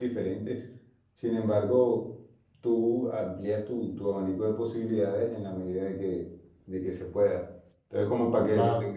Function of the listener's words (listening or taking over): listening